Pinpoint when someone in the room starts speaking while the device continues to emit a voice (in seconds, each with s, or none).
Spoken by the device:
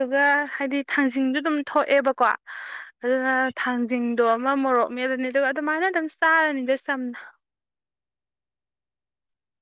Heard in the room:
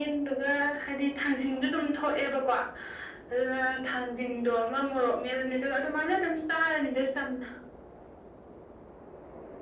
none